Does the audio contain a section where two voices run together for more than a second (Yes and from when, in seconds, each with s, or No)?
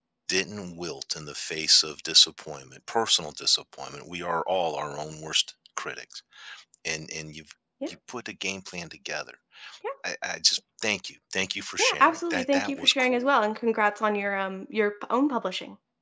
Yes, from 11.8 s